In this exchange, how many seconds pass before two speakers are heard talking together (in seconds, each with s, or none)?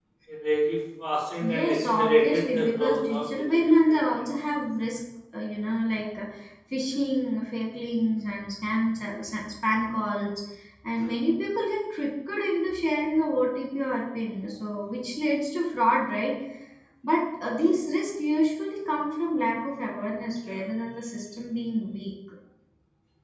1.4 s